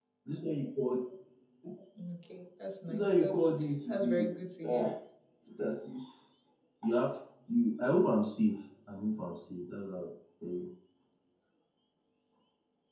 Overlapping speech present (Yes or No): Yes